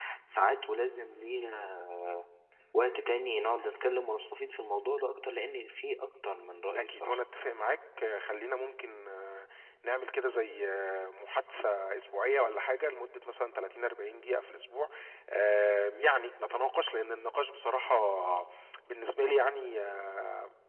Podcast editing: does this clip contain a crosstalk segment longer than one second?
No

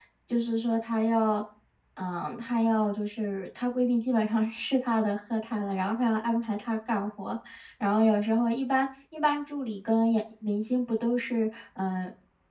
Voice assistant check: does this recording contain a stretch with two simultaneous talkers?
No

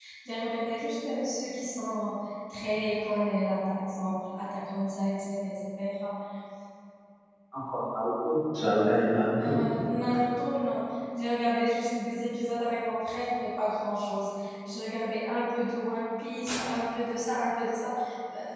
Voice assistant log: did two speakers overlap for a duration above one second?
No

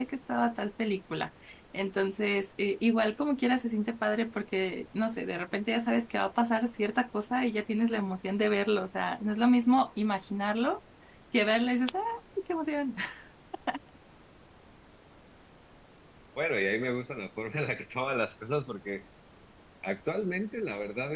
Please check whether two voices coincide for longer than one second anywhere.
No

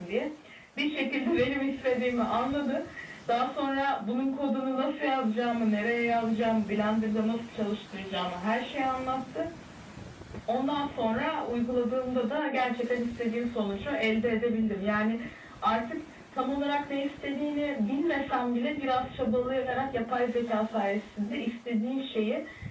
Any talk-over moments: No

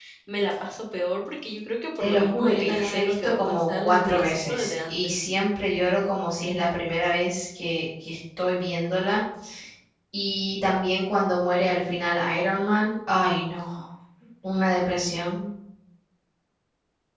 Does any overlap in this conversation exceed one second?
Yes, from 2.0 s

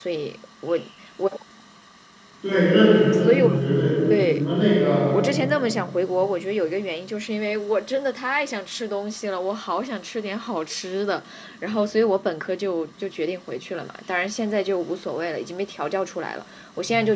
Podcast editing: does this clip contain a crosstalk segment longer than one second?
No

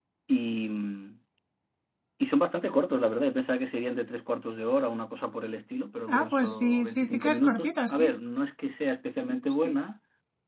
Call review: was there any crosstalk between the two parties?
Yes, from 6.1 s

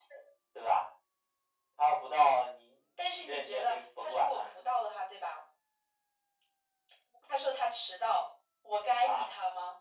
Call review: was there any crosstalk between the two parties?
Yes, from 3.1 s

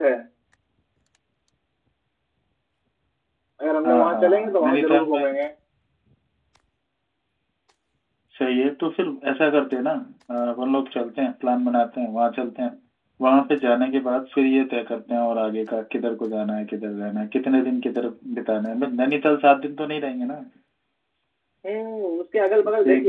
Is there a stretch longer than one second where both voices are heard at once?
Yes, from 3.8 s

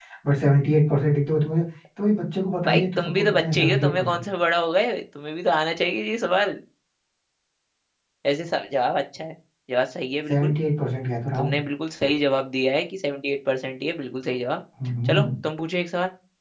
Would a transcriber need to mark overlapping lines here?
Yes, from 2.6 s

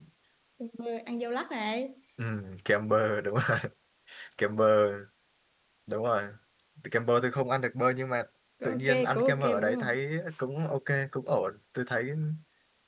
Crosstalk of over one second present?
Yes, from 8.6 s

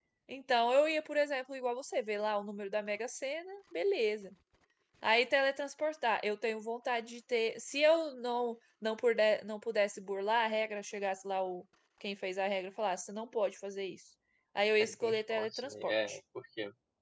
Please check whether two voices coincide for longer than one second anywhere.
Yes, from 14.8 s

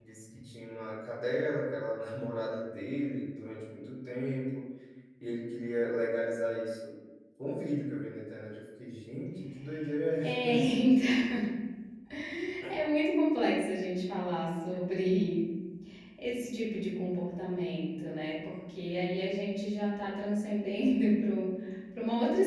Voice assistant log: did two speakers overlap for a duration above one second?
No

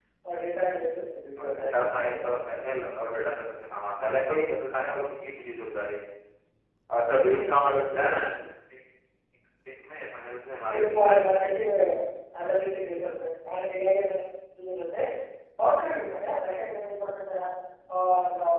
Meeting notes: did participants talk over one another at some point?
Yes, from 1.4 s

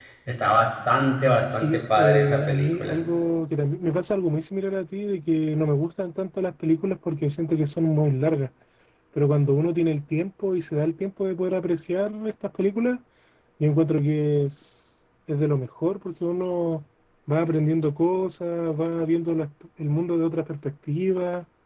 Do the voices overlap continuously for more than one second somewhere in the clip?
Yes, from 1.6 s

